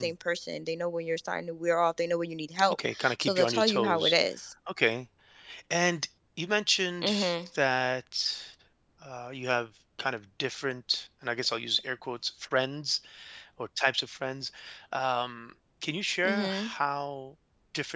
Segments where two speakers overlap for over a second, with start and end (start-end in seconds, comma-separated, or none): 2.7-4.2